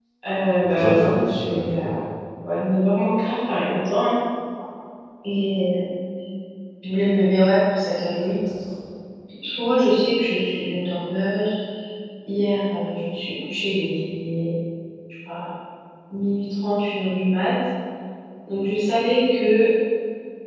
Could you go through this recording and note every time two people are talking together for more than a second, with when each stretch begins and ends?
0.6-1.9

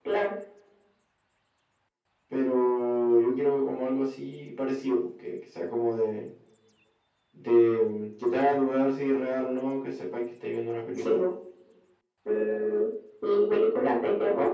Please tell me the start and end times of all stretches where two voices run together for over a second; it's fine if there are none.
none

